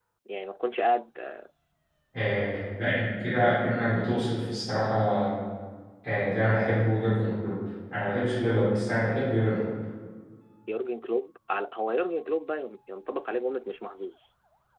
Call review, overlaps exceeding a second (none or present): none